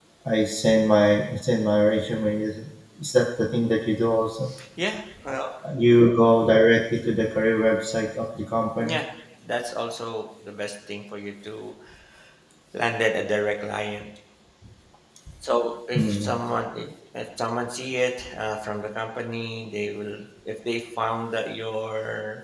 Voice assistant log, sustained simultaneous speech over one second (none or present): none